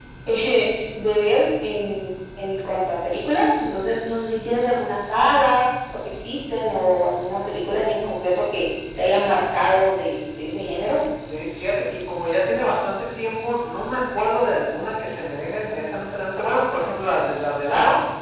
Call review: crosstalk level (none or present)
none